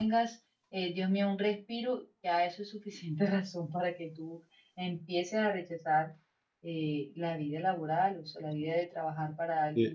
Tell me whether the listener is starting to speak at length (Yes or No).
Yes